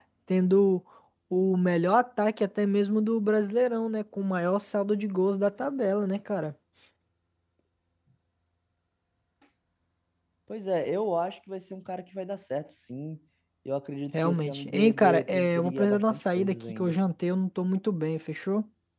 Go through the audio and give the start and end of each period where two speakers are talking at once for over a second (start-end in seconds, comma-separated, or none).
14.2-16.9